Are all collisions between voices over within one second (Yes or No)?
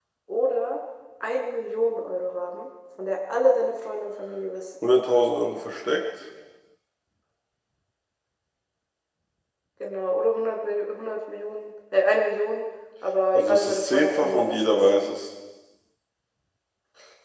No